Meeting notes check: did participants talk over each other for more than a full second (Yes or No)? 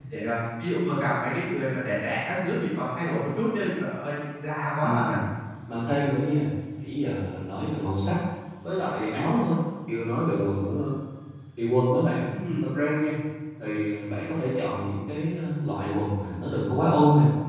No